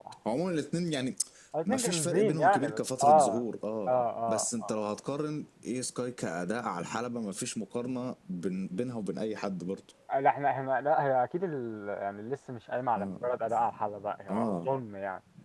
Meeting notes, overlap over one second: present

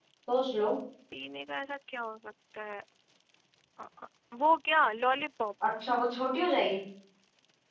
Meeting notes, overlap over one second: none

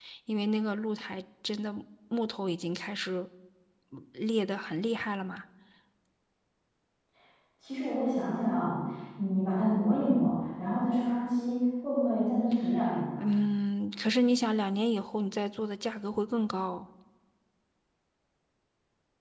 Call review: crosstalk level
none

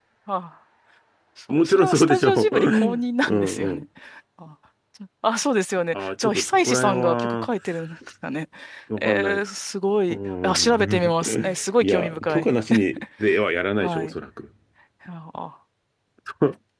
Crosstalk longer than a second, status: present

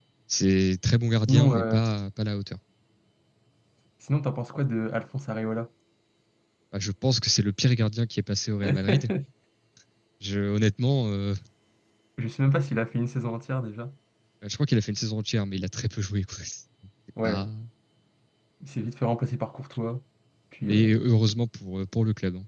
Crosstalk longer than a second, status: none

